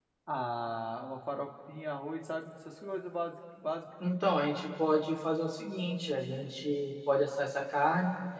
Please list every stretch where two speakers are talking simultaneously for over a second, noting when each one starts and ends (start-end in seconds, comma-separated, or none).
none